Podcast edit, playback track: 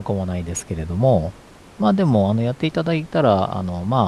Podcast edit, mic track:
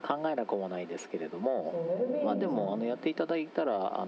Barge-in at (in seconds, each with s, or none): 1.7 s